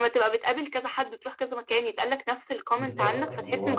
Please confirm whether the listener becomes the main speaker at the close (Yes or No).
Yes